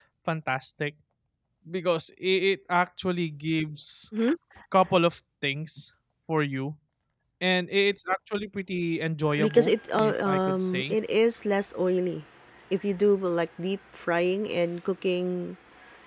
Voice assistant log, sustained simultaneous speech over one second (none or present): present